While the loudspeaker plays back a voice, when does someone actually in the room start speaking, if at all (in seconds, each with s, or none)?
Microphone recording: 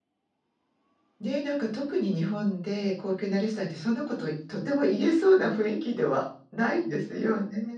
1.2 s